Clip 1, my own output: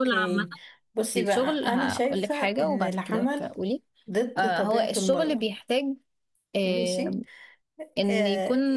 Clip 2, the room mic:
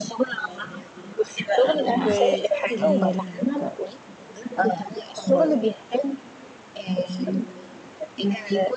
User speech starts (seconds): 1.8 s

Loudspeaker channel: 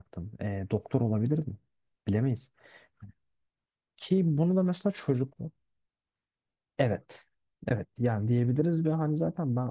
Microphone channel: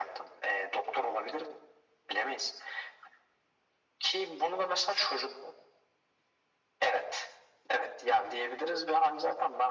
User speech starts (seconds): none

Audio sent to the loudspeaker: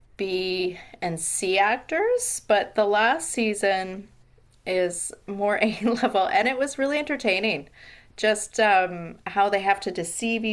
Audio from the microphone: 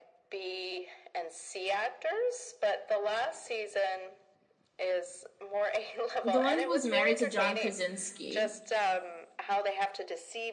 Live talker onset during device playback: 6.2 s

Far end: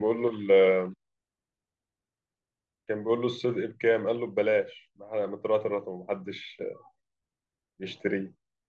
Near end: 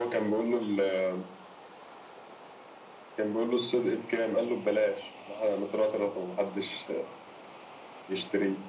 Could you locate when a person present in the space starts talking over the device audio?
none

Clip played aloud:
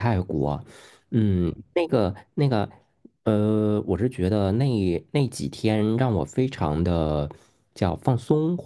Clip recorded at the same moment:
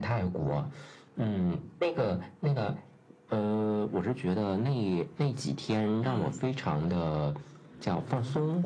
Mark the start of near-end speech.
6.0 s

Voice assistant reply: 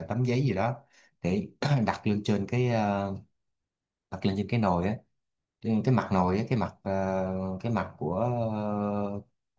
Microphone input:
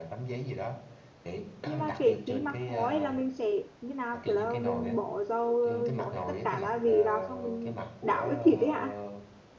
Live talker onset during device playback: 1.6 s

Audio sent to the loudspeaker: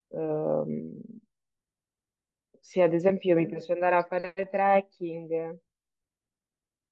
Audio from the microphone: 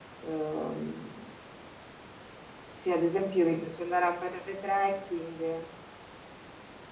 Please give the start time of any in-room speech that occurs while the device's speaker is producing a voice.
none

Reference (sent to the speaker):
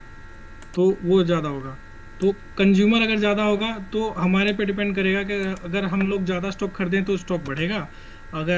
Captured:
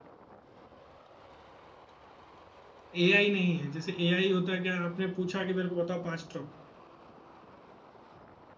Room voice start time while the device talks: 3.0 s

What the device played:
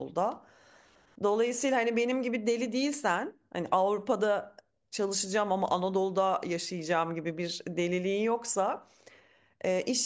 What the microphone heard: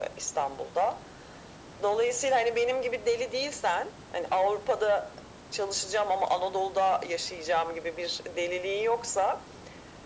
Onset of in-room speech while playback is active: none

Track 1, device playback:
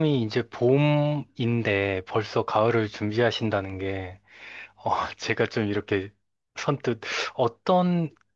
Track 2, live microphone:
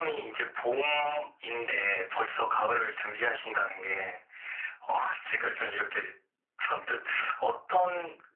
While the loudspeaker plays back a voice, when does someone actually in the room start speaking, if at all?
none

